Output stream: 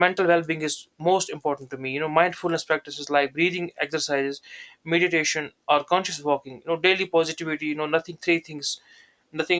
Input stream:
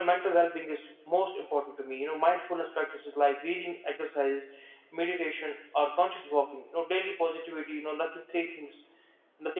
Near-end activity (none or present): none